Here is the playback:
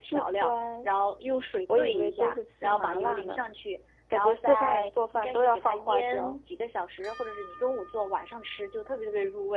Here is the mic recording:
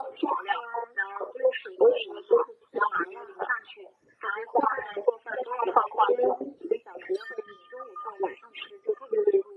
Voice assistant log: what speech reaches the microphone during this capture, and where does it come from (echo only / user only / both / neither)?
echo only